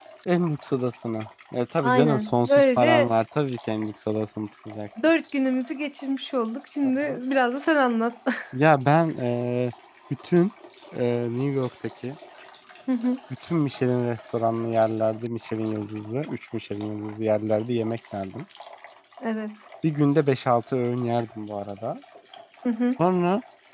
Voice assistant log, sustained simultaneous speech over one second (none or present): present